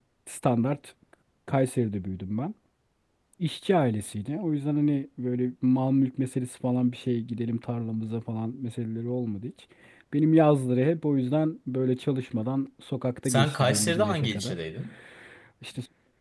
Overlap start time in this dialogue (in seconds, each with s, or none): 13.2 s